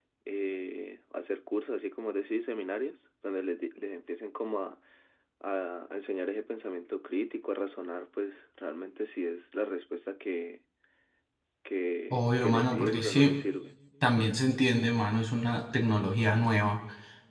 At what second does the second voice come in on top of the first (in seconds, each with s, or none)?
12.1 s